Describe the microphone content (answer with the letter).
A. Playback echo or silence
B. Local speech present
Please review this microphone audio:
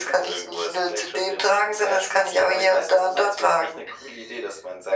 A